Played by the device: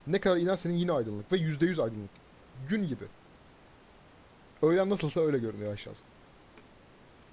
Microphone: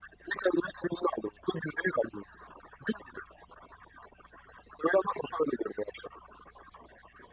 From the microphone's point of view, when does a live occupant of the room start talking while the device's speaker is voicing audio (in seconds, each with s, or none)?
none